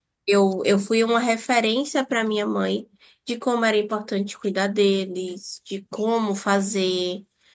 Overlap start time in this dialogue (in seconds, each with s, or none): none